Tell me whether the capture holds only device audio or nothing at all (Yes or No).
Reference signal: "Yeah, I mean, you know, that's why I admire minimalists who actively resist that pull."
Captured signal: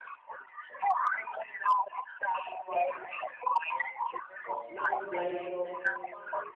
No